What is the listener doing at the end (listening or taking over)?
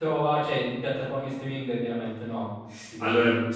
taking over